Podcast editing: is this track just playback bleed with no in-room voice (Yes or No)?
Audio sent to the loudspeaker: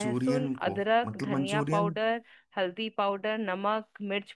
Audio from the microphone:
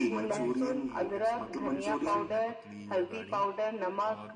No